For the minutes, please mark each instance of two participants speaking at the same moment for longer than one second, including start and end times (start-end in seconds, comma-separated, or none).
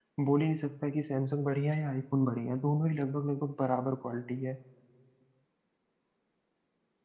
none